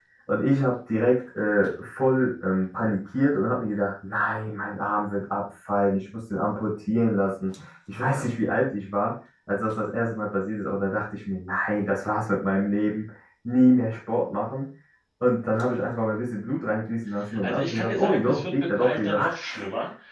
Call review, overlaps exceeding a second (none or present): present